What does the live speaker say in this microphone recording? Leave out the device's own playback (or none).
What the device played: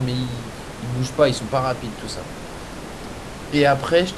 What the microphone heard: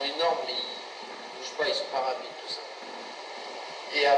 none